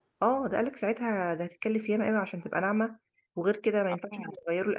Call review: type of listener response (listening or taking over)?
listening